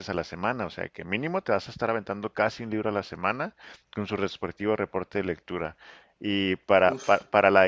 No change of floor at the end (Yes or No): Yes